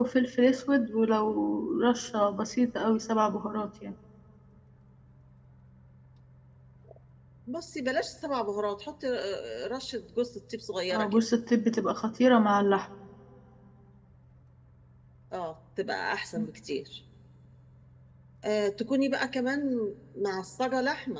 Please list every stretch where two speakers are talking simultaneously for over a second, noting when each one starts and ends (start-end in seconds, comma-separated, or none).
none